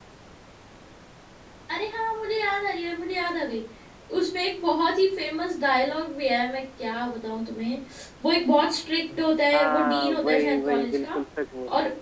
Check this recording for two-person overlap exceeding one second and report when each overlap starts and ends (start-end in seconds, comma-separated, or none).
9.5-11.0